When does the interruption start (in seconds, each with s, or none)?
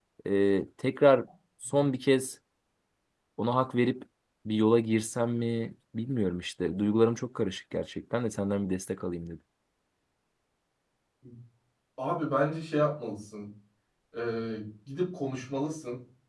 none